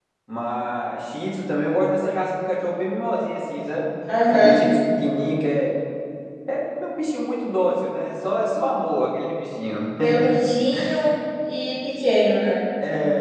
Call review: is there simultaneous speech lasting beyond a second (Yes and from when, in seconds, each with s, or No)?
No